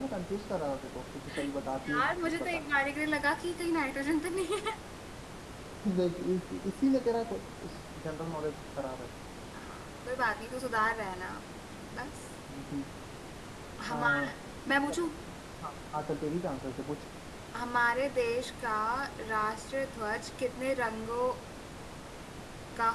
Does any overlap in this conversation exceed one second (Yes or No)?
Yes